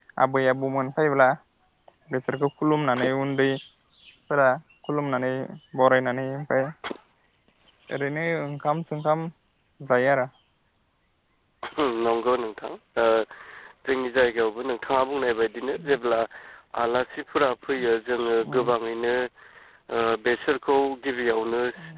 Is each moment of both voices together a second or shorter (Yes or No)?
Yes